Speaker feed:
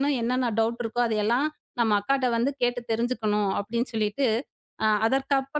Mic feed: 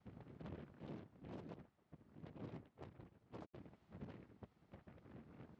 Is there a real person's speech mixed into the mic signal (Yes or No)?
No